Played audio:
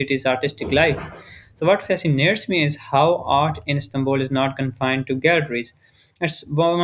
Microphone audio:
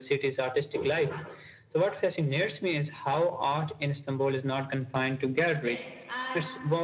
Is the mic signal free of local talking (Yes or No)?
No